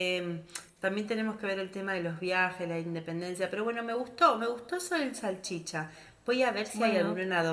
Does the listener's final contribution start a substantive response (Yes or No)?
No